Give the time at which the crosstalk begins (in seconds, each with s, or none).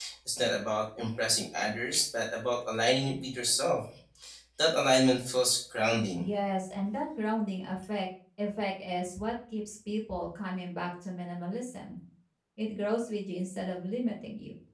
none